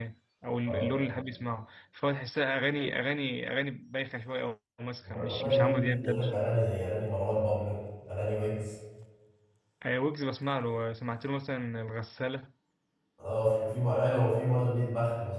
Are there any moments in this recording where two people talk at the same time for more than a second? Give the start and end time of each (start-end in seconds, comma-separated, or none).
5.1-6.3